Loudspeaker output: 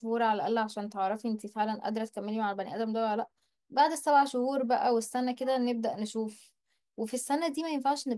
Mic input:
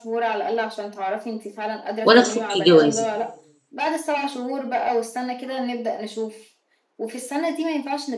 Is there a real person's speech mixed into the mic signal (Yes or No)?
Yes